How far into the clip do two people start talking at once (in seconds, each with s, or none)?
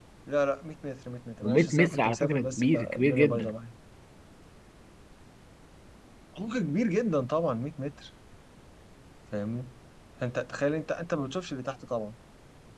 1.4 s